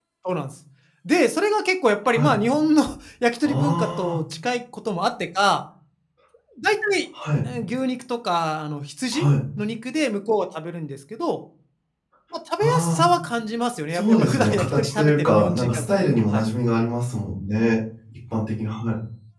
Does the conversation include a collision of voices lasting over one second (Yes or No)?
Yes